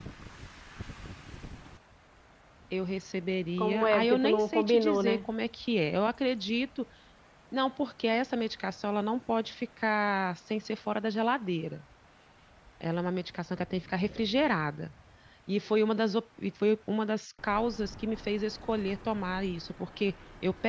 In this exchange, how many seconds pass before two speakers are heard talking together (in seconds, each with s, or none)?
3.6 s